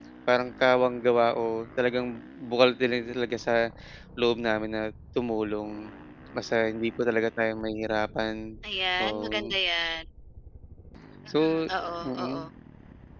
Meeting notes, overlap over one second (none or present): none